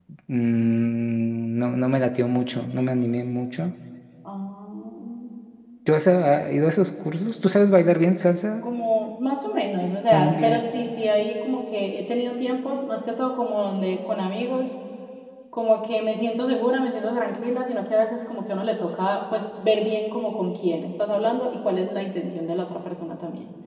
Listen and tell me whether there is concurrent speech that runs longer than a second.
No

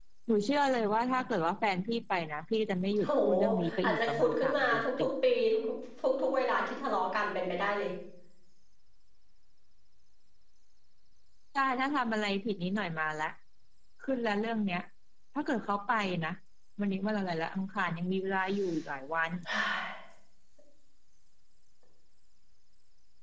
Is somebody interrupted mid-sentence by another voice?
Yes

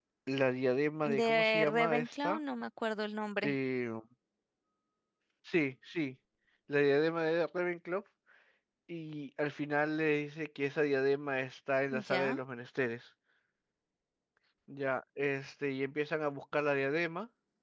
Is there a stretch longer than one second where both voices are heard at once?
Yes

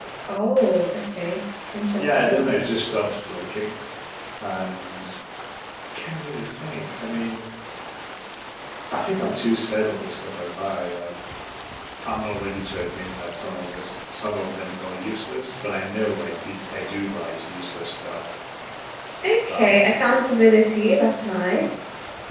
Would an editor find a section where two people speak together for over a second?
No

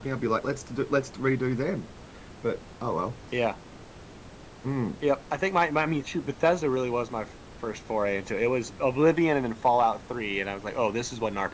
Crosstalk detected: No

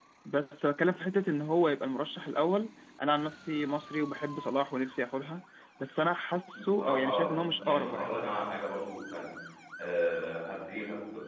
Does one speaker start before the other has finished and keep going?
Yes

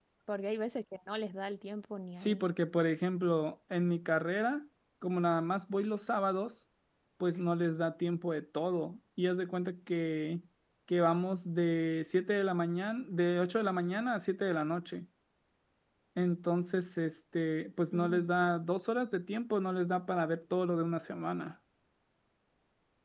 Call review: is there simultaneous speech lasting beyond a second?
No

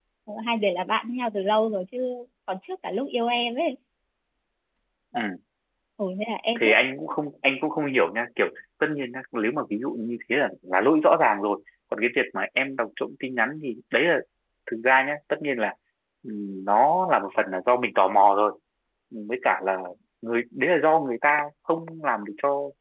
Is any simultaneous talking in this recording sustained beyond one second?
No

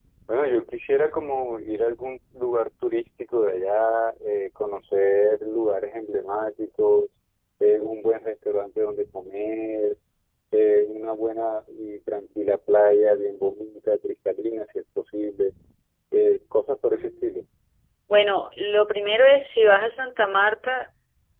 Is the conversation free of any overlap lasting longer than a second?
Yes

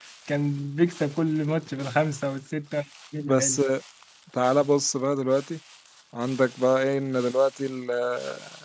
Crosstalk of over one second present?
No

